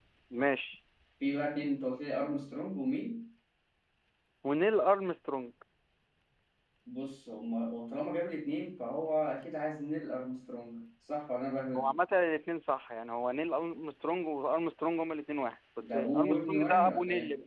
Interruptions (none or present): present